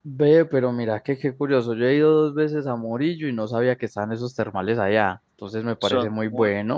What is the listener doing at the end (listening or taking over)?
listening